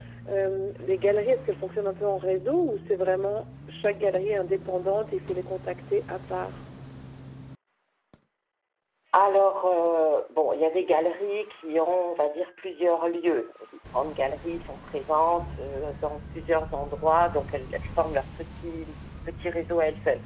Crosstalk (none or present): none